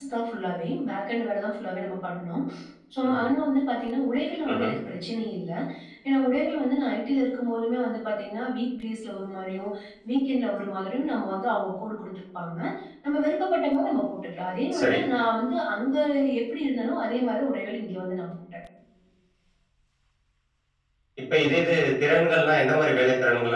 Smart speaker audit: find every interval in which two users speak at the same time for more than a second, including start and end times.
none

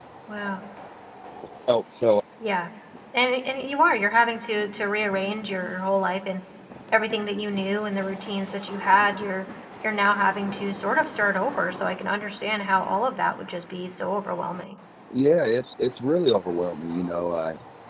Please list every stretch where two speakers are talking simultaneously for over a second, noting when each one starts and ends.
none

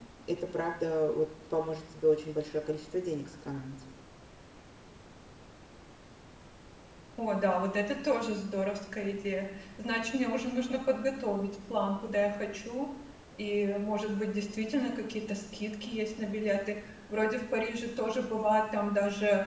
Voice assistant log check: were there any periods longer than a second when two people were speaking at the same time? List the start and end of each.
none

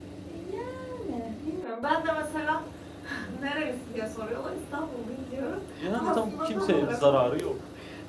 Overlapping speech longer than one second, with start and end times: 6.0-7.3

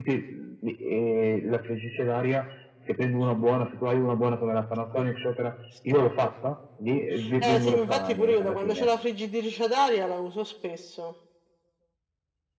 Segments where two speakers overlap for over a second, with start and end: 7.4-8.9

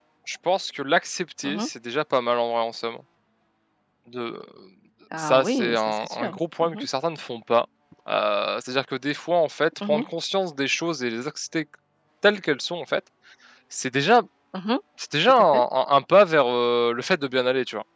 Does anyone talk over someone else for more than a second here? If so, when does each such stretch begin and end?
5.2-6.8

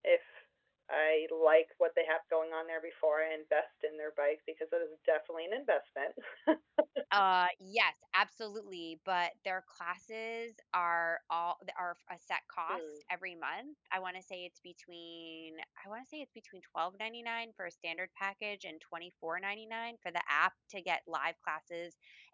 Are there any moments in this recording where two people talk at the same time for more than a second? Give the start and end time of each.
none

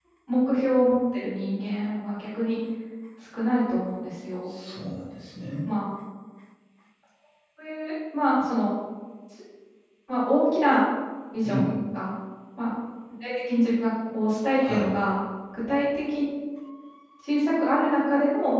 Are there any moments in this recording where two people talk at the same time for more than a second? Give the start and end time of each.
none

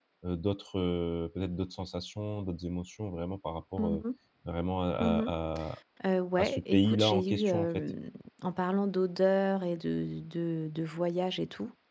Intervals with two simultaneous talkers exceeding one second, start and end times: 6.4-7.8

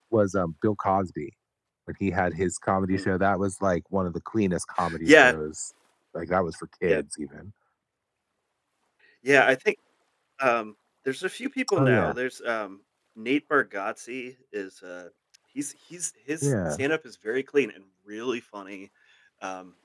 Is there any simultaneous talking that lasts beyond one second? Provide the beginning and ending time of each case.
none

